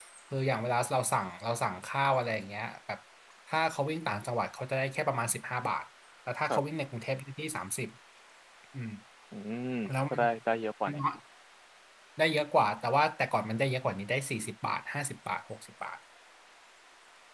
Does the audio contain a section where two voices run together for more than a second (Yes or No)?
No